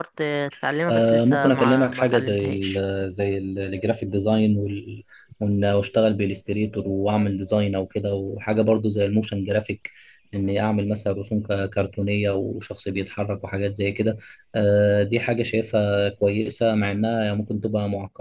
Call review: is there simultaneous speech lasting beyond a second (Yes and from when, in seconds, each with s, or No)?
Yes, from 0.9 s